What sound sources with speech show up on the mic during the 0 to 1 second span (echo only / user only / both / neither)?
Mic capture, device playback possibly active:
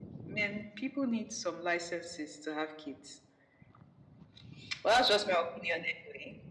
echo only